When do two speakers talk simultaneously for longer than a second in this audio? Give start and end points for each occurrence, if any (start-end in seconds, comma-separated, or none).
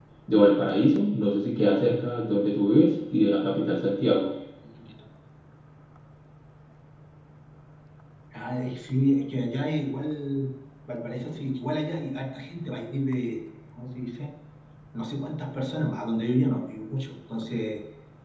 none